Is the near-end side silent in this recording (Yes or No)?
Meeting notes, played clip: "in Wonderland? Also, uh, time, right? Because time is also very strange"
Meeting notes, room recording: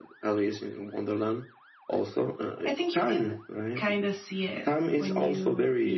No